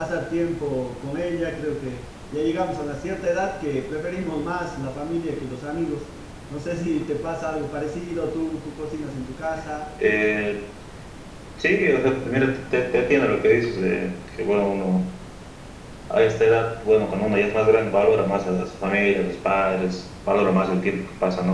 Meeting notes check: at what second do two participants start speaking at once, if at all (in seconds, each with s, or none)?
none